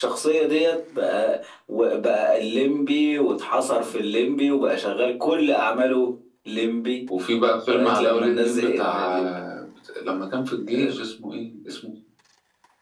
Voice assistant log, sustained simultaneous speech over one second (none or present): present